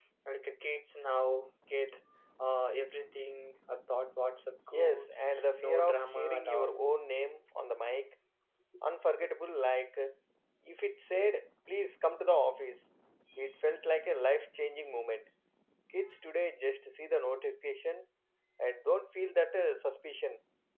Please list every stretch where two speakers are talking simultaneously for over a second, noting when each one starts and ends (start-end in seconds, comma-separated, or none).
4.7-6.8